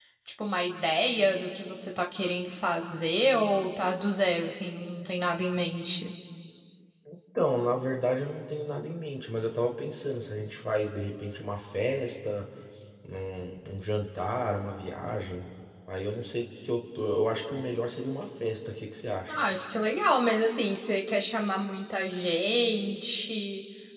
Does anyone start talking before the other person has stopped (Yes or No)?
No